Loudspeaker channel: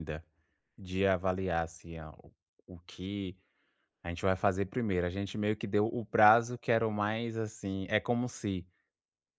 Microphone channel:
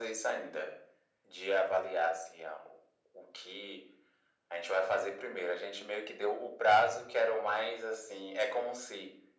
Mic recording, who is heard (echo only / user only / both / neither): echo only